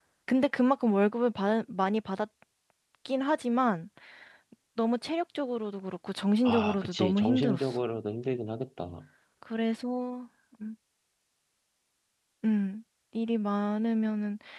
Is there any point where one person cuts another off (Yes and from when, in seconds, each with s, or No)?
Yes, from 6.4 s